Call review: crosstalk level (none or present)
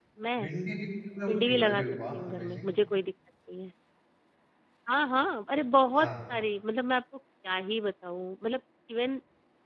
present